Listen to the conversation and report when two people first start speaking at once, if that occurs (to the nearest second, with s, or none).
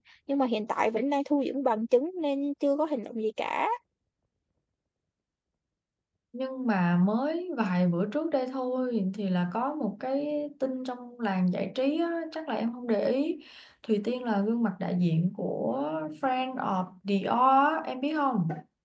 none